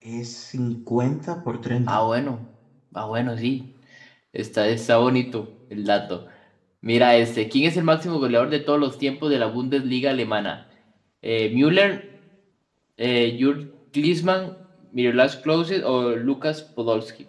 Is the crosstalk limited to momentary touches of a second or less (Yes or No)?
Yes